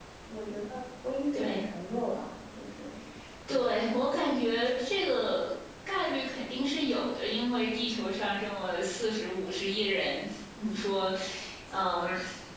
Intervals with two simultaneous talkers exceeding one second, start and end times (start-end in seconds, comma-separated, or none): none